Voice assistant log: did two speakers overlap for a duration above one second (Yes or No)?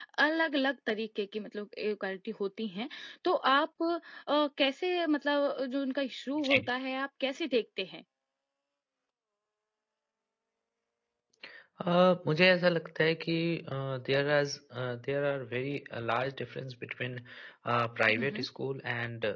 No